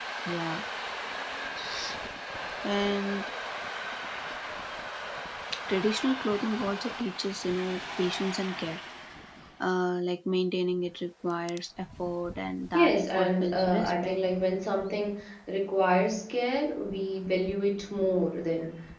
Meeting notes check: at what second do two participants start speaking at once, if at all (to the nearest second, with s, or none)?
13 s